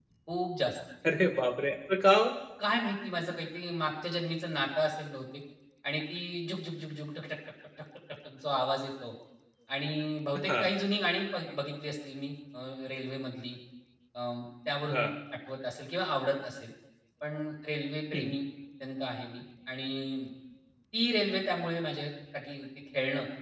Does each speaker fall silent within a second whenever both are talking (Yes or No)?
Yes